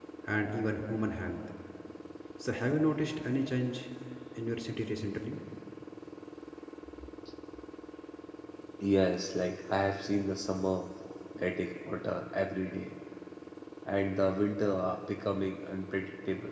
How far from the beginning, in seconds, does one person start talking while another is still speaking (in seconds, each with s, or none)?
none